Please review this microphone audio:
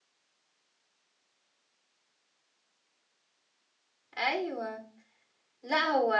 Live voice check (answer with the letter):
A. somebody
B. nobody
A